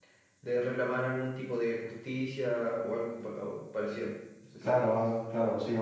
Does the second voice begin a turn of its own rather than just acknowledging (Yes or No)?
Yes